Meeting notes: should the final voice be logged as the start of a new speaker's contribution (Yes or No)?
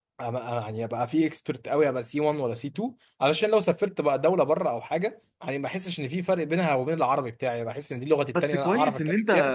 Yes